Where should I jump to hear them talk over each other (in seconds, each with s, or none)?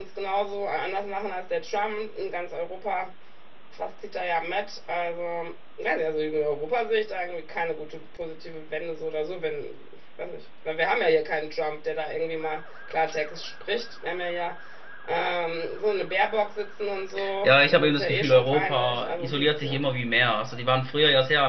17.4 s